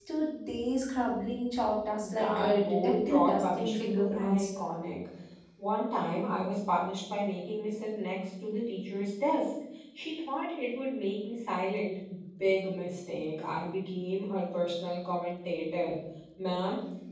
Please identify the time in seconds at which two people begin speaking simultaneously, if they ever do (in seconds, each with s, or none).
2.0 s